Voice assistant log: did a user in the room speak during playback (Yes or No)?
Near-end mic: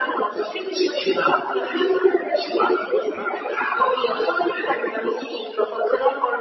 No